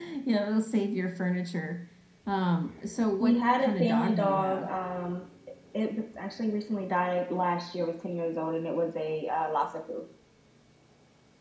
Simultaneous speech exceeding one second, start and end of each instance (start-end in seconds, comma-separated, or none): 3.2-4.7